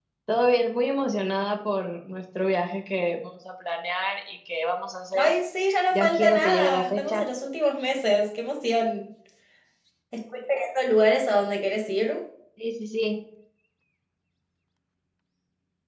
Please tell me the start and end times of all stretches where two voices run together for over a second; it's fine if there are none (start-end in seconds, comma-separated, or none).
5.9-7.2